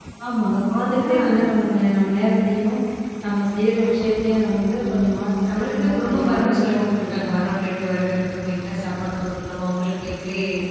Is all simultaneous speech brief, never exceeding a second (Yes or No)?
No